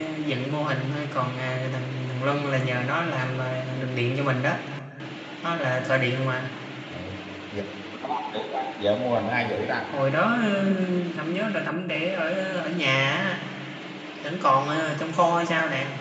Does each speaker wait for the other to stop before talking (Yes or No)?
Yes